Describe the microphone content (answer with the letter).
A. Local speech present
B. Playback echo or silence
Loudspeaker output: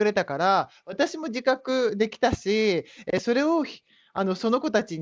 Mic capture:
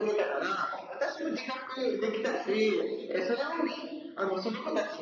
B